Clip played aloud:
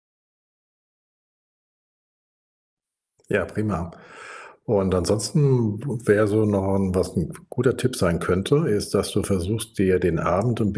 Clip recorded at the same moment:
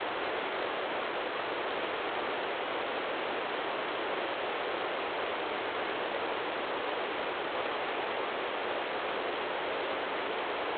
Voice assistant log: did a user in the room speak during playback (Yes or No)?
No